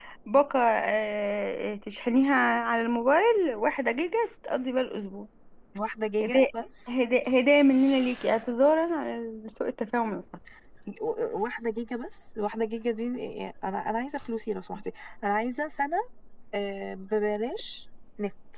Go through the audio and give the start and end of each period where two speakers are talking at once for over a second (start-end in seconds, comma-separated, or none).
none